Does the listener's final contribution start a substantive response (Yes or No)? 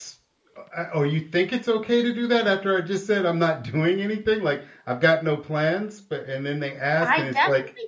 Yes